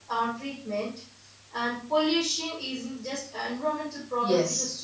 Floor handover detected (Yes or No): No